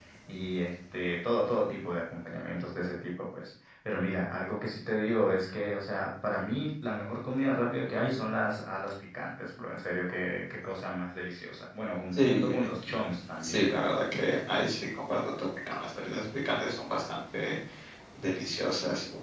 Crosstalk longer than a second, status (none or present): none